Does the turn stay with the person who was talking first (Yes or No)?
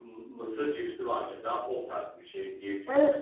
No